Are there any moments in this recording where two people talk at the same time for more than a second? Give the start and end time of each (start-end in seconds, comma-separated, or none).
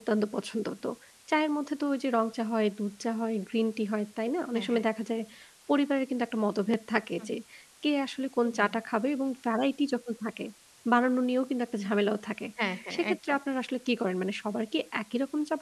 none